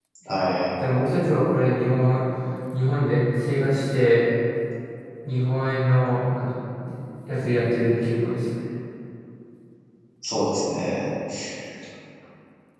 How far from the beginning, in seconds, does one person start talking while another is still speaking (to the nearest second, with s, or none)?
none